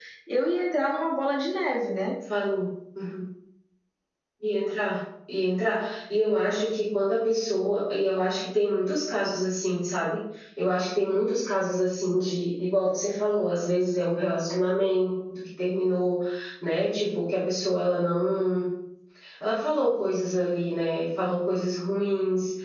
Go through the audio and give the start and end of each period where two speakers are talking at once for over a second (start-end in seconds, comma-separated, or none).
none